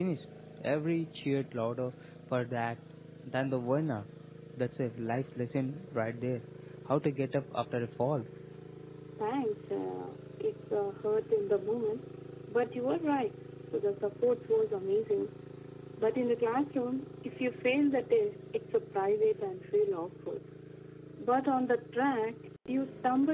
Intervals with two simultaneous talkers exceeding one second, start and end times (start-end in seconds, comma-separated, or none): none